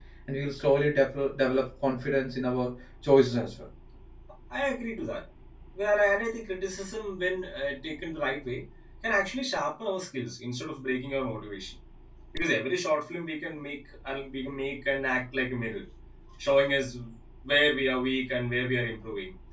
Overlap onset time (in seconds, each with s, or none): none